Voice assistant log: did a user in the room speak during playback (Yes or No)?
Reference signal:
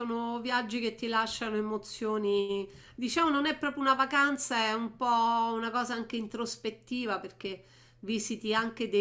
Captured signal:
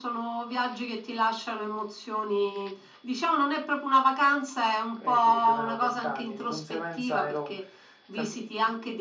Yes